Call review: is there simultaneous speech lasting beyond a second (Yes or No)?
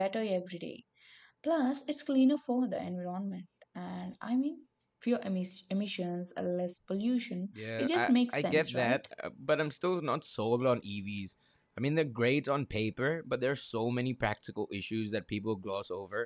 Yes